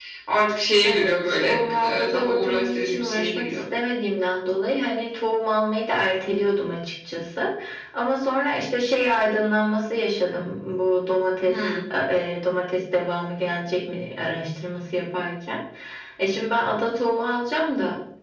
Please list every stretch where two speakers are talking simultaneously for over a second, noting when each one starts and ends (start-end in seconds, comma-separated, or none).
0.8-3.5